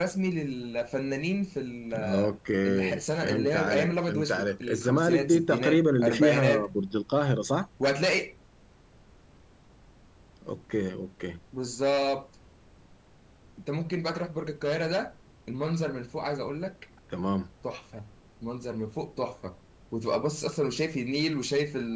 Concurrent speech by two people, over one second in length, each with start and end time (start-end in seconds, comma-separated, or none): 2.7-6.7